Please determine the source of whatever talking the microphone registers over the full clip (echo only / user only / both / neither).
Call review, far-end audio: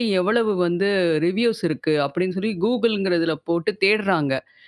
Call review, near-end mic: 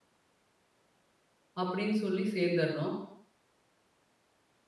user only